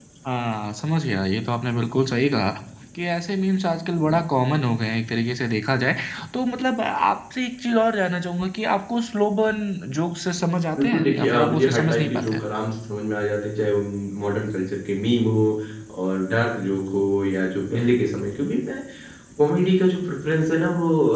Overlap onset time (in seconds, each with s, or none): 10.8 s